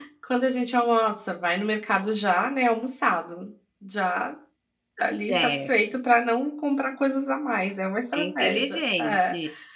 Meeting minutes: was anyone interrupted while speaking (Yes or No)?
Yes